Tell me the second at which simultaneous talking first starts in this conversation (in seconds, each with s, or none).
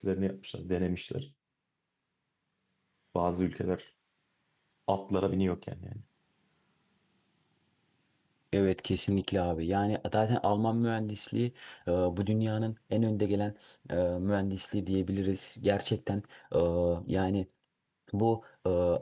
none